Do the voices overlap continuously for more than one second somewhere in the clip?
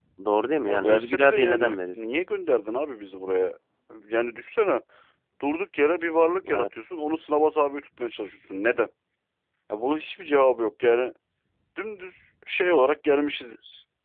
Yes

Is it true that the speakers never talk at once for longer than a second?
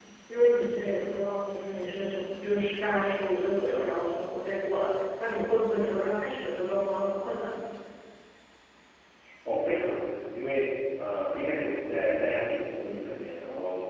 Yes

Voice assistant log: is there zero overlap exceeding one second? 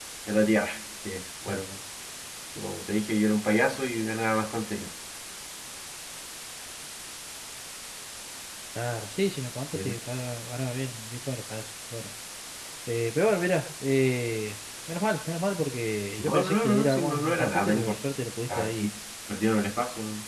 No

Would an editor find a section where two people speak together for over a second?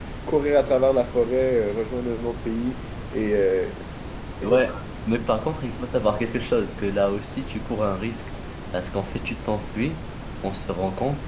No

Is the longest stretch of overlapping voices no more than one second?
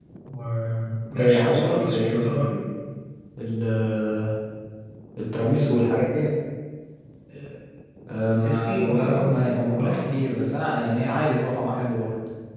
No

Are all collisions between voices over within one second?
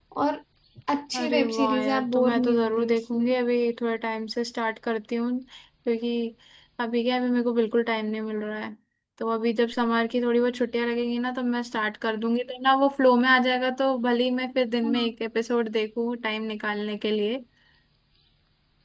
No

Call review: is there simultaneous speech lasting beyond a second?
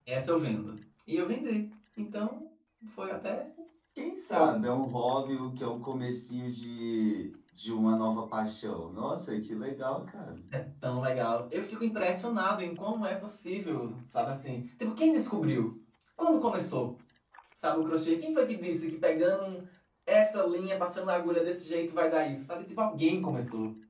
No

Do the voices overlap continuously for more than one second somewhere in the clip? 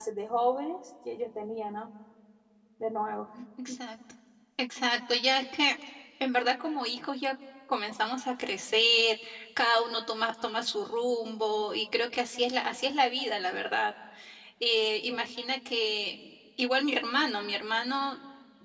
No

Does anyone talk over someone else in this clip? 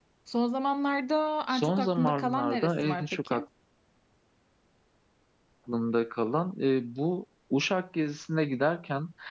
Yes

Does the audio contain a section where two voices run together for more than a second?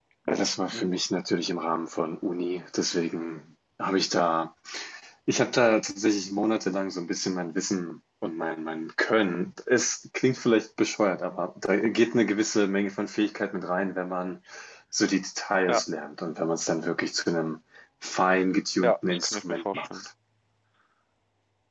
Yes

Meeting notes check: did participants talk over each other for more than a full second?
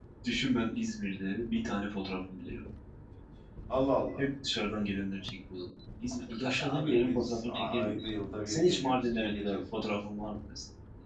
Yes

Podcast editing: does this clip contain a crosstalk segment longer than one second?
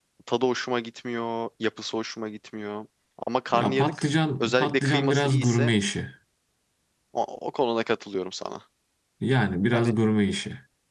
Yes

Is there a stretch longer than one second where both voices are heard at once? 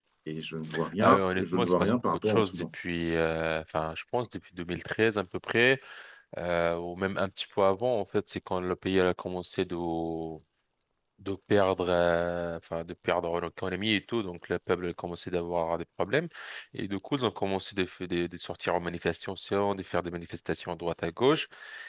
Yes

